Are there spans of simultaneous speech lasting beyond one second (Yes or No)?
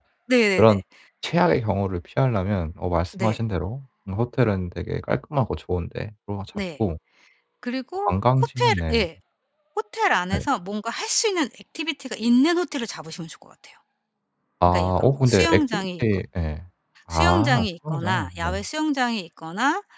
Yes